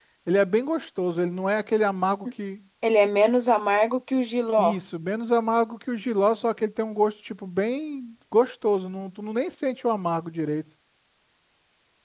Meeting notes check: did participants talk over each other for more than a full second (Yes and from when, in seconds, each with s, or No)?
No